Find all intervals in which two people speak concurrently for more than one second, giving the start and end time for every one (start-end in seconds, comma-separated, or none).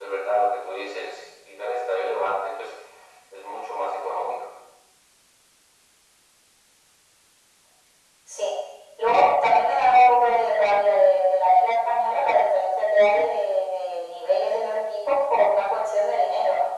none